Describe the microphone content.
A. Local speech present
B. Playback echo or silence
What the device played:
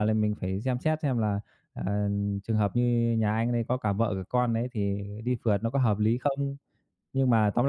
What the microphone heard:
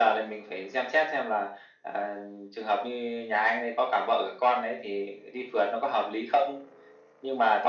B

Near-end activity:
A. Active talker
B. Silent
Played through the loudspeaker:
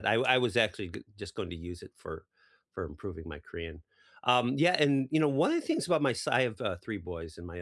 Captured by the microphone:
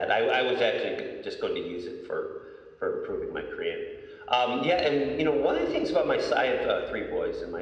B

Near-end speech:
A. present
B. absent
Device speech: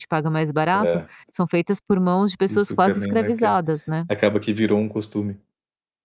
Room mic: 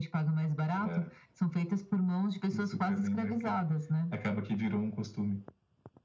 B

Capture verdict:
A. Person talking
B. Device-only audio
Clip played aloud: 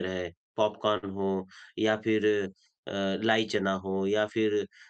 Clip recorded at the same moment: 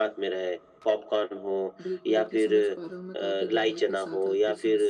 A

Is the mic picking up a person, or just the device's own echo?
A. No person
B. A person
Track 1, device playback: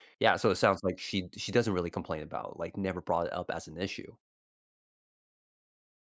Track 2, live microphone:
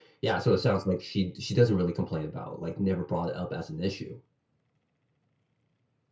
A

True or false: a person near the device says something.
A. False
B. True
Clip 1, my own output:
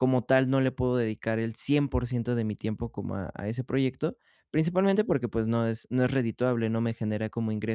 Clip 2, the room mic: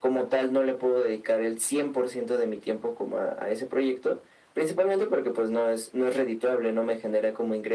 A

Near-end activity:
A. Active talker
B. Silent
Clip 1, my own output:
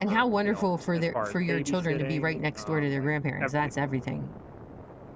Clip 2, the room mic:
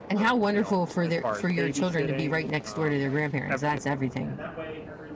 A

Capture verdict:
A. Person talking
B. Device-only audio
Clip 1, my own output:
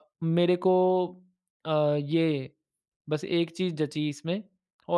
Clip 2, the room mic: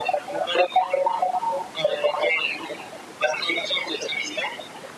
B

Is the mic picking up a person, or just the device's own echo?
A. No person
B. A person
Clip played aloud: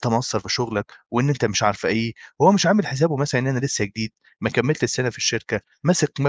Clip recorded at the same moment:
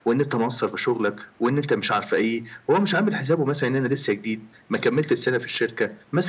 A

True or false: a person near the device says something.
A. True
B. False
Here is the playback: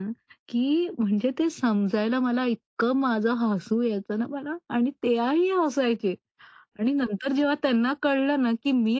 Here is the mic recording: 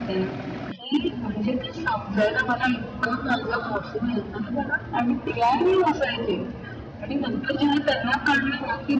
B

